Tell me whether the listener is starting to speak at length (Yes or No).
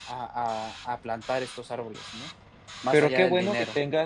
Yes